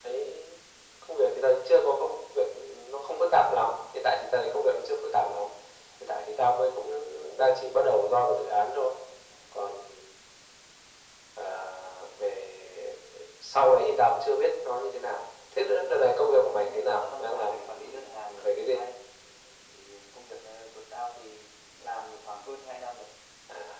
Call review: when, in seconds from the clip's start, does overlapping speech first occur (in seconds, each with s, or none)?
16.5 s